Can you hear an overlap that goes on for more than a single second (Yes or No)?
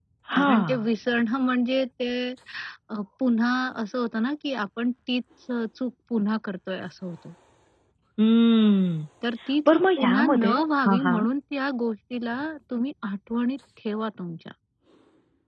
Yes